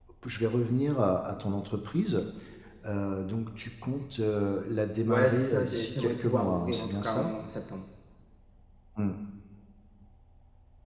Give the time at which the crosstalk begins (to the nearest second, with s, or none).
5 s